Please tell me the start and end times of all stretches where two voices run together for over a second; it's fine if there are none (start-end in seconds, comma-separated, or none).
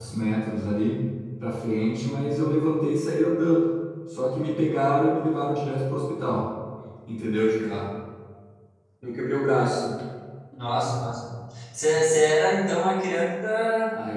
none